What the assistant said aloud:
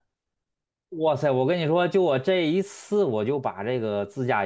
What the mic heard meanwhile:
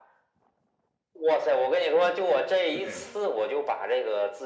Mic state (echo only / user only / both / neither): both